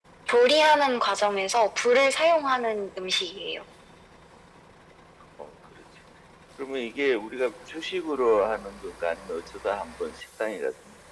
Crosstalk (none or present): none